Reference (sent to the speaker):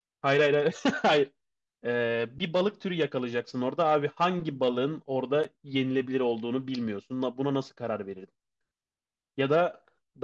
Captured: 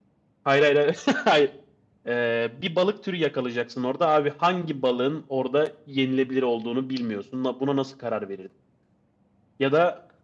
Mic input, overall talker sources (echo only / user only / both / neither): echo only